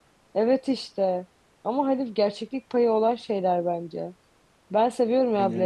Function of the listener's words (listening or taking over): listening